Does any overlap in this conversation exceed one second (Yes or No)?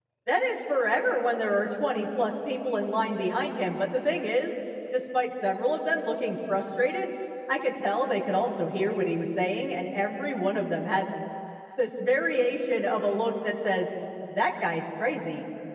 No